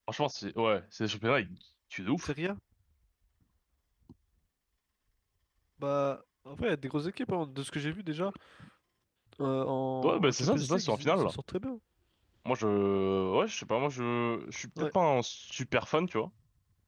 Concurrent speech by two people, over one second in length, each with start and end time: 10.0-11.3

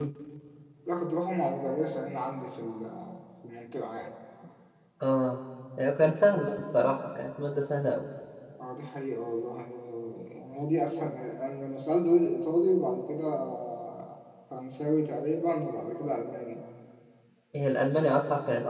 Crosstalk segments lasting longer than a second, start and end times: none

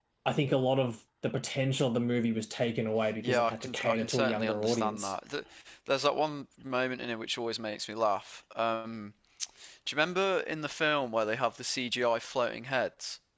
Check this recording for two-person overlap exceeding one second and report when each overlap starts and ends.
3.2-5.1

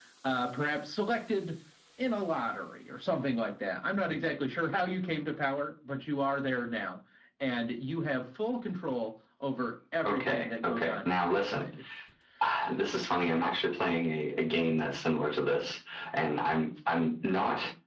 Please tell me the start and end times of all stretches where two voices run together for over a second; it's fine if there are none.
10.1-11.7

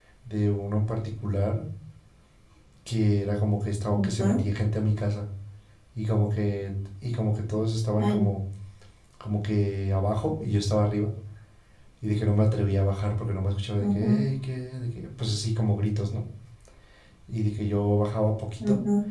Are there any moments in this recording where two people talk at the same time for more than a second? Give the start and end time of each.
none

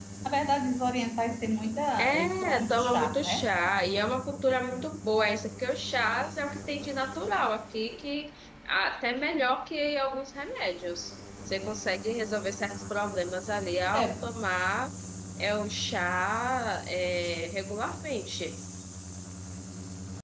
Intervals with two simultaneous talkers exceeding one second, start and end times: 2.0-3.5

